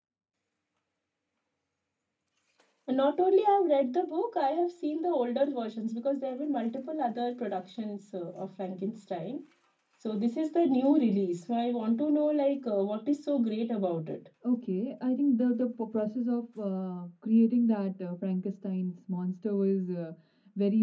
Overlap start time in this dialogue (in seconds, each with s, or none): none